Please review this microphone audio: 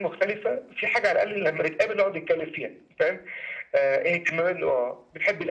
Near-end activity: none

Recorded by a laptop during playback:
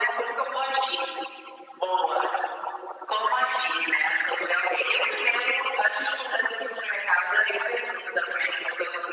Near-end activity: none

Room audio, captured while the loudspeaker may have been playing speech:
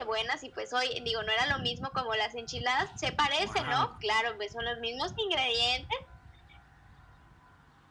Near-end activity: present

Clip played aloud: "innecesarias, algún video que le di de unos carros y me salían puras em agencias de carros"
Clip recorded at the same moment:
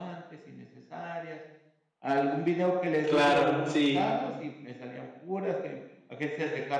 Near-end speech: present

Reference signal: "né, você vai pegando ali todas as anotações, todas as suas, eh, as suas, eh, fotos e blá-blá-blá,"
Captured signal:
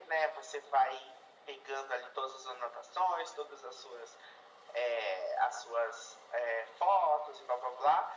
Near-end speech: none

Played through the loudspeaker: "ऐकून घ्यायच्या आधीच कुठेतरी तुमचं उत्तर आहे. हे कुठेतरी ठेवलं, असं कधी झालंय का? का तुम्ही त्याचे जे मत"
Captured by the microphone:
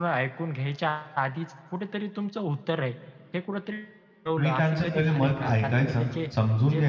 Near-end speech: present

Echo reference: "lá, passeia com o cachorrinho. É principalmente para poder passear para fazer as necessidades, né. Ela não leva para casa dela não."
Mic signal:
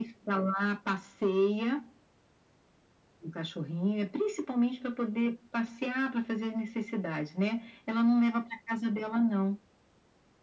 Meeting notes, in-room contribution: none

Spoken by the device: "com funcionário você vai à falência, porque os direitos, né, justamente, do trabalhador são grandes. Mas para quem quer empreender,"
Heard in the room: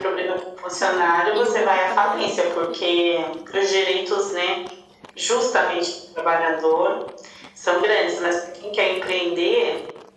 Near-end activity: present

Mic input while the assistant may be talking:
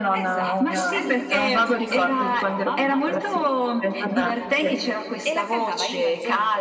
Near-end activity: present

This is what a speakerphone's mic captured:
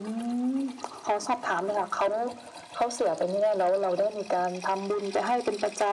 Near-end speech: none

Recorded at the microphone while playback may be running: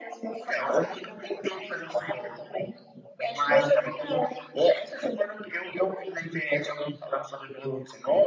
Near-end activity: none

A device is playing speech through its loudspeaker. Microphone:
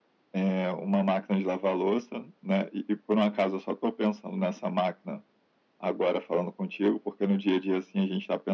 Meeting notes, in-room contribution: none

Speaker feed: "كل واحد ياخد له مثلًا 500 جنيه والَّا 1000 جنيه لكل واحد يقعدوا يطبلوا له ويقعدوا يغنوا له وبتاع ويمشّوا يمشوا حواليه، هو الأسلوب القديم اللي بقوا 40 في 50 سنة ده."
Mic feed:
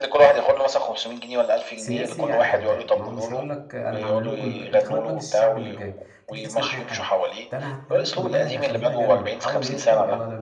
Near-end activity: present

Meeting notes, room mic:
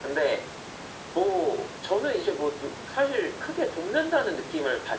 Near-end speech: none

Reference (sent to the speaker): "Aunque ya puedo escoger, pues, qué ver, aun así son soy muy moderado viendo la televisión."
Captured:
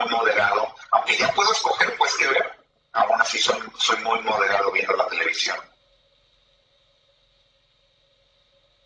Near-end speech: none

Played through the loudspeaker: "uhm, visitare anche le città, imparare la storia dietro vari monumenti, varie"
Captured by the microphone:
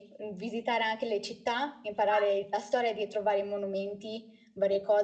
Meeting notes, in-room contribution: present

